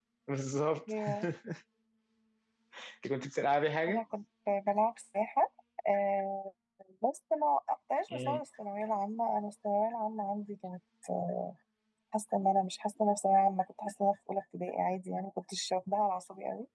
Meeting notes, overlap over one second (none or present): none